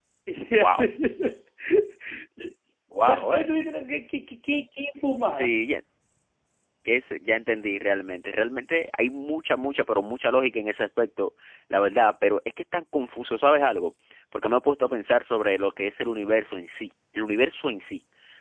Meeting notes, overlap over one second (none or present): none